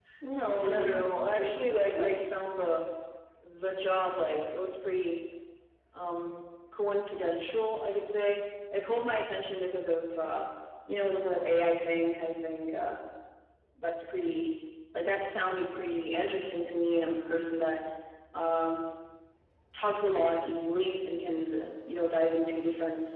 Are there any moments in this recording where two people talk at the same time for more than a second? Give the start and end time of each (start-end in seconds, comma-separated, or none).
0.6-2.3